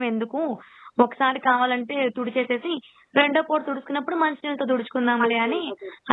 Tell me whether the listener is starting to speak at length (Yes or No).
Yes